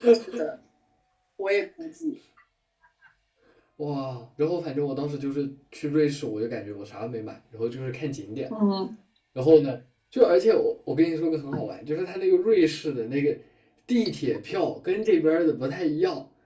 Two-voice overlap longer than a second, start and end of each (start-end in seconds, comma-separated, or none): none